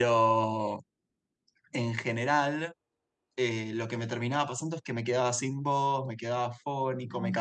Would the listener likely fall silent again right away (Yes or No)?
Yes